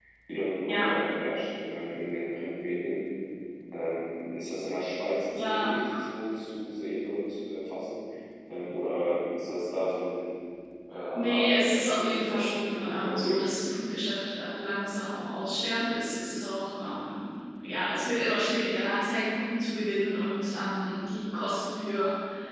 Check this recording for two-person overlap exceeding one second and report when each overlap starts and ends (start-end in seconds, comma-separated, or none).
11.2-13.4